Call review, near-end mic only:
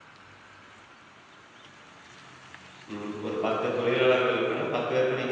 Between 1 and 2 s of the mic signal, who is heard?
neither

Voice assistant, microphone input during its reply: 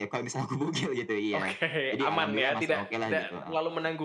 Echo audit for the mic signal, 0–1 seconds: echo only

